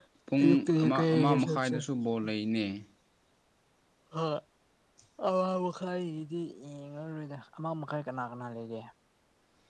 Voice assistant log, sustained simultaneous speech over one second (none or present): present